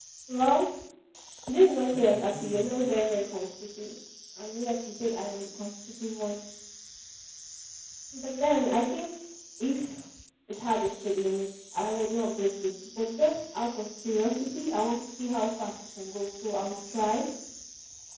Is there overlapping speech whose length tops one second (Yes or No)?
Yes